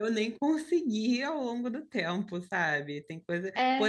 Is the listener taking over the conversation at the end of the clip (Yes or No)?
No